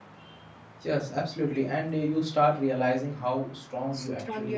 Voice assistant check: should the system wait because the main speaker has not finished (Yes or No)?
No